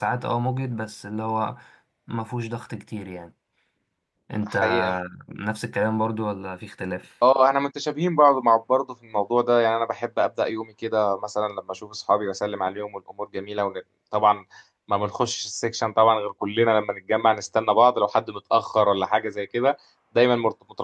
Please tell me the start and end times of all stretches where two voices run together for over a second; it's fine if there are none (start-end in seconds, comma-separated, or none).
none